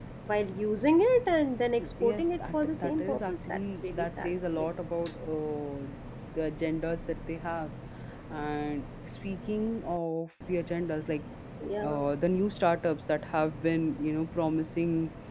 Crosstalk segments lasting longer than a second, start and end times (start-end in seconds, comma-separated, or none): 1.8-4.7